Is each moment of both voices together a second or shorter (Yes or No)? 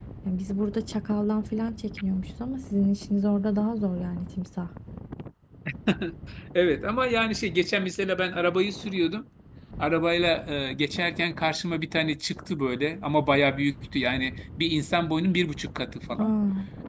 Yes